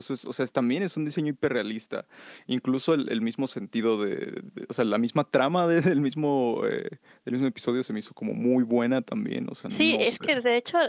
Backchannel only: No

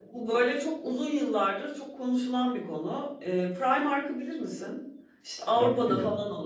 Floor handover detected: No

